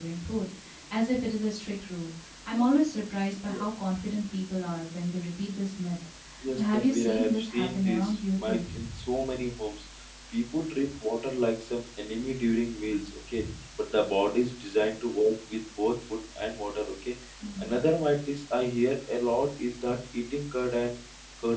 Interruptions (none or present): present